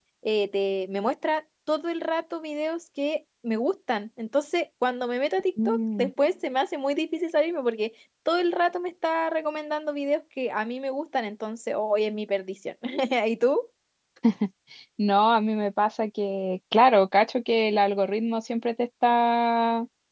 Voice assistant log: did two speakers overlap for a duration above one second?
No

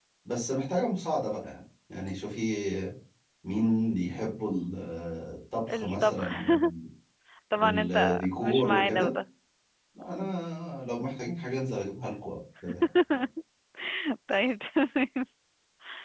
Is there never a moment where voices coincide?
No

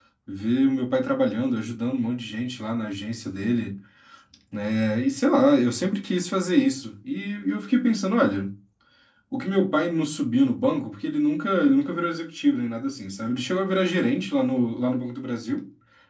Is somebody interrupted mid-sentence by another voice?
No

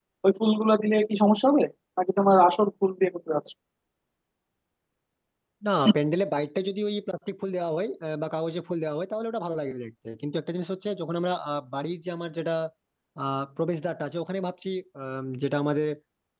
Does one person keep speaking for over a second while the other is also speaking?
No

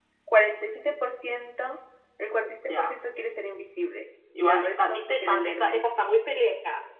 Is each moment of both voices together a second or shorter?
No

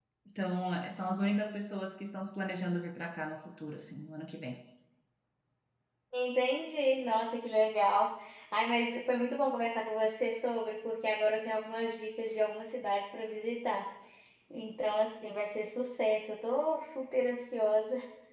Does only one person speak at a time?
Yes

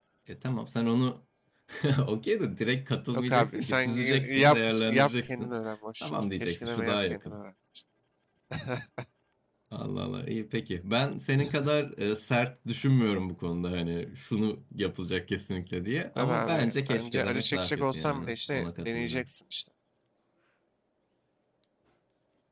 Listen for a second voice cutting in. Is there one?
Yes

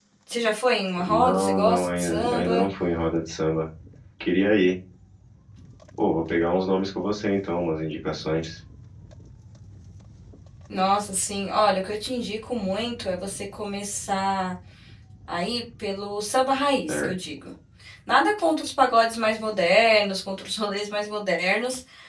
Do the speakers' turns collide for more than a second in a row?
Yes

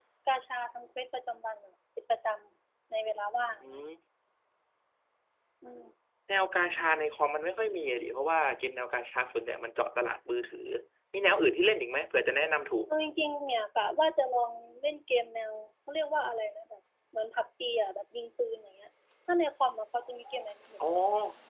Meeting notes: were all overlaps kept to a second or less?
Yes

